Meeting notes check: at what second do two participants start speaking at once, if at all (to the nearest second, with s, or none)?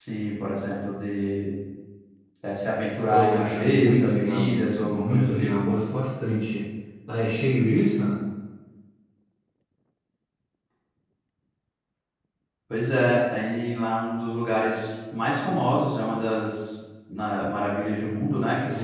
3 s